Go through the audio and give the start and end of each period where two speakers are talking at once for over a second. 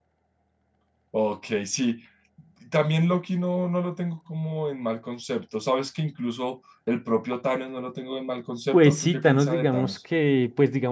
8.7-10.0

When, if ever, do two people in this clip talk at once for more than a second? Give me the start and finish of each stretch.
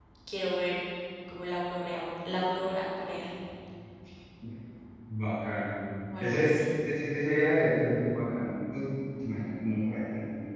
none

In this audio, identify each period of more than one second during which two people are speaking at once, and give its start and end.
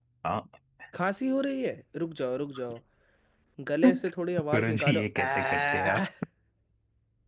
4.5-6.0

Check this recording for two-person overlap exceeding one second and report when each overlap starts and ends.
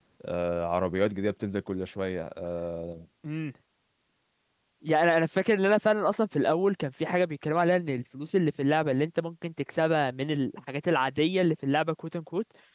none

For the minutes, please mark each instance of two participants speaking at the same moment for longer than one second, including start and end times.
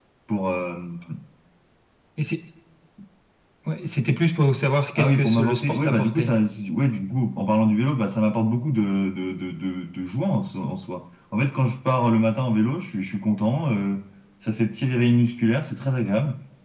5.0-6.3

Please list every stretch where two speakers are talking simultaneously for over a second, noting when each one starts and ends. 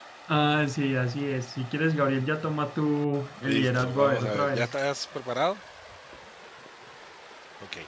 3.4-4.7

